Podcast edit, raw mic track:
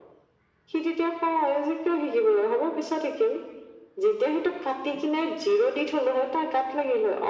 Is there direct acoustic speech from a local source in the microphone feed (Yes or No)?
No